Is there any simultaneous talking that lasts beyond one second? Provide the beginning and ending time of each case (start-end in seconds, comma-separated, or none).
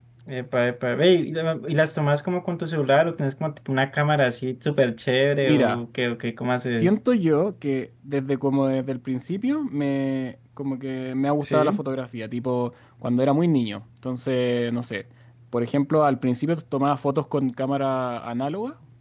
none